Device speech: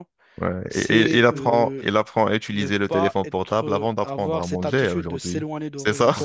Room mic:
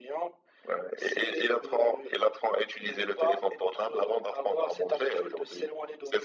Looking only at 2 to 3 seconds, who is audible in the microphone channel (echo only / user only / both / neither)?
echo only